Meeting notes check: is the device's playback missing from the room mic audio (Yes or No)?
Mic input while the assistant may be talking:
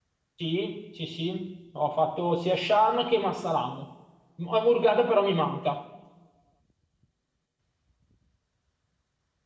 Yes